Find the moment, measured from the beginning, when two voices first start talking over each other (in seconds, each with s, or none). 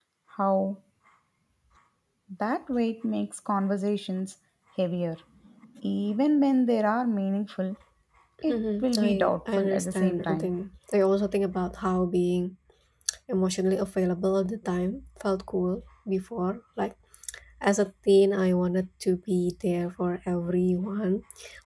8.5 s